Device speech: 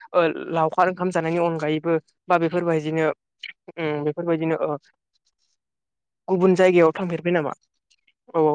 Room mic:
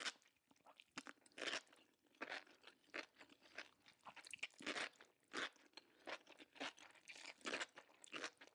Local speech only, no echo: none

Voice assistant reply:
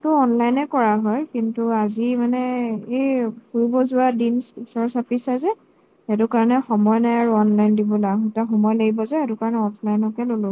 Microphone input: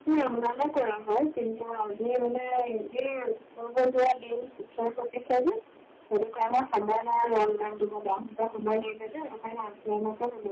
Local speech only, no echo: none

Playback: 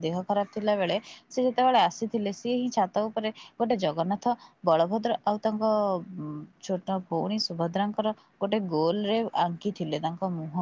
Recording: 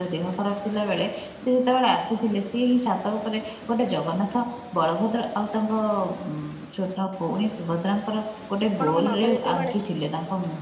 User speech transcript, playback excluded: ଆପଣଙ୍କ ମାମା ଯେତେବେଳେ

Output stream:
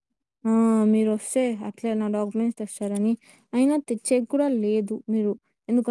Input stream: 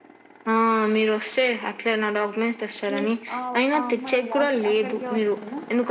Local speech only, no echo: మీ ఆ ఆ అమ్మాయి అక్ అక్కడికే వస్తుందా

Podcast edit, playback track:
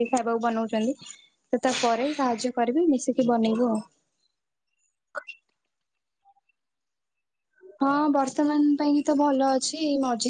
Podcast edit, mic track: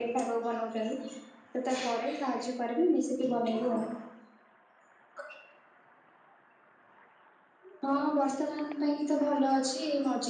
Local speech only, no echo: none

